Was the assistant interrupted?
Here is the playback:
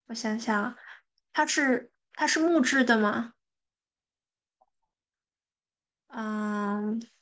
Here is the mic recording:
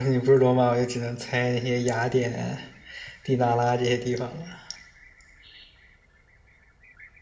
Yes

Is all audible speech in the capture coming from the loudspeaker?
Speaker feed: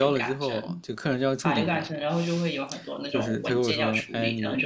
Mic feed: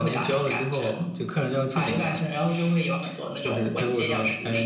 Yes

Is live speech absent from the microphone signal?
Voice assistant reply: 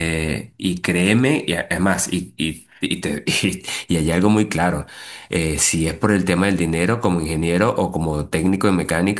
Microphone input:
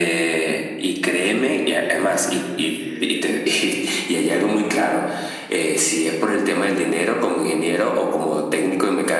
No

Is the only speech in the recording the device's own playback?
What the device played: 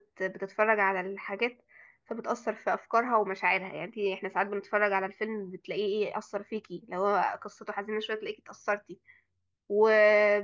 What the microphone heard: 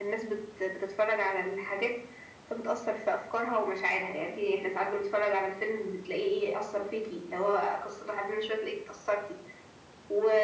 Yes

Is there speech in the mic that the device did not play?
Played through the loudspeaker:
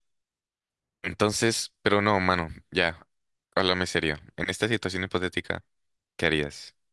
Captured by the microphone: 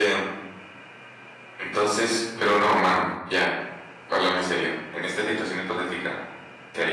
No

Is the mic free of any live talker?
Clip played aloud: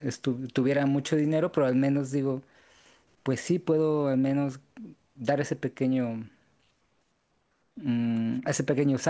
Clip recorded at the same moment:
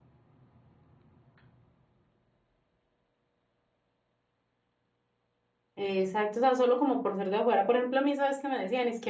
No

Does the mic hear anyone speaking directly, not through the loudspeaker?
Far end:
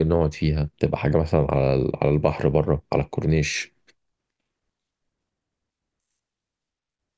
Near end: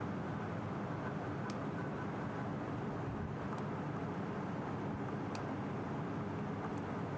No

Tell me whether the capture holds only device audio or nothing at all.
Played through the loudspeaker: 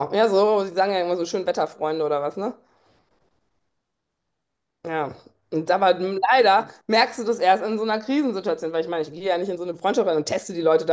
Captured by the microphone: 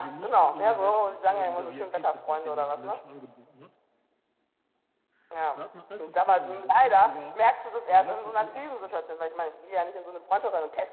No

